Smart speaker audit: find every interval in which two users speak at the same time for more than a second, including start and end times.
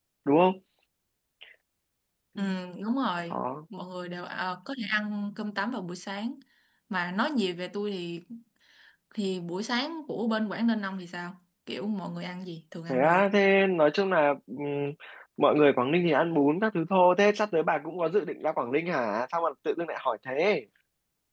none

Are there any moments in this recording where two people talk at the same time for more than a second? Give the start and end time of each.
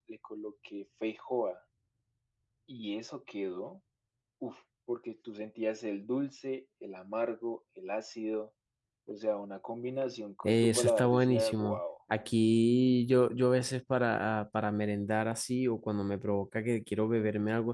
10.4-11.8

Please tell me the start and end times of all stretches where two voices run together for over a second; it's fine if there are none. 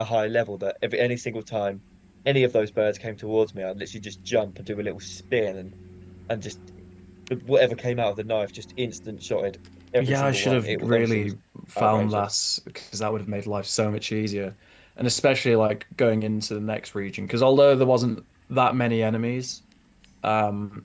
10.0-11.3

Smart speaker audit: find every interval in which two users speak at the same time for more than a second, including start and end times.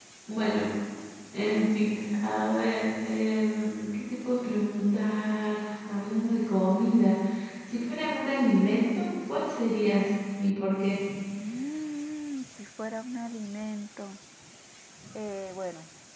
none

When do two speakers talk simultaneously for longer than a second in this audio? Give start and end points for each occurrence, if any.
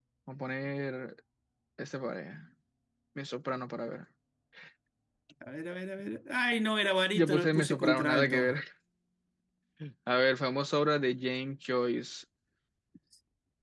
7.1-8.4

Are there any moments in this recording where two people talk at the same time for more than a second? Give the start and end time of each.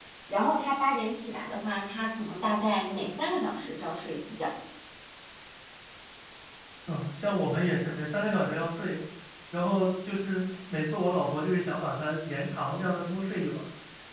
none

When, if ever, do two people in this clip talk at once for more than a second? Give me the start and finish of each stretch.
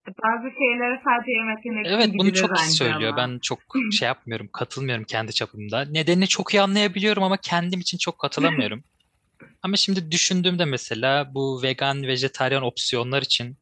1.8-3.3

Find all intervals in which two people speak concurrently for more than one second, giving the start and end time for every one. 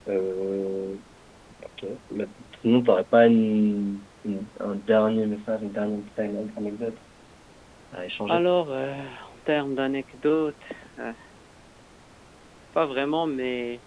none

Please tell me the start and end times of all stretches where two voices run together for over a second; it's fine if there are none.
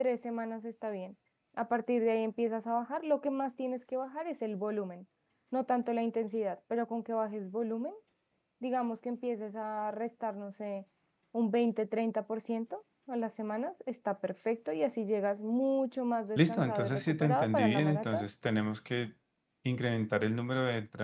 16.4-18.2

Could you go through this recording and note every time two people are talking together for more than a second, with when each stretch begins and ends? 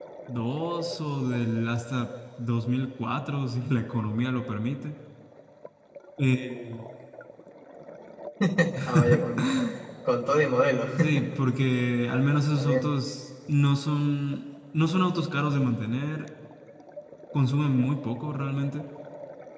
none

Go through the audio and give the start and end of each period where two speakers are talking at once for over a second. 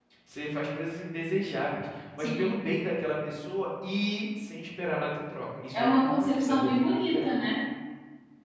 5.7-7.4

